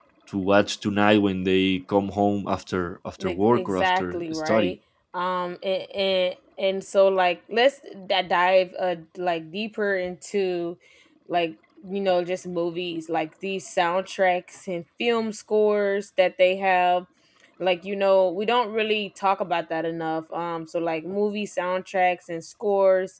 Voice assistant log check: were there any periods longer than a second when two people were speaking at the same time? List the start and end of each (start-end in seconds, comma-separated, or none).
3.2-4.7